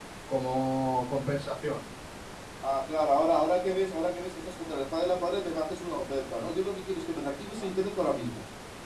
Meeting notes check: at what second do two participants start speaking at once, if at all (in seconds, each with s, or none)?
none